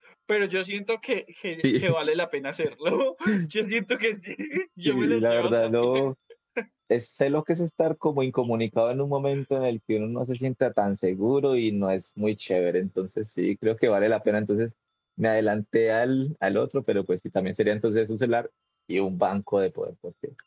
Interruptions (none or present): present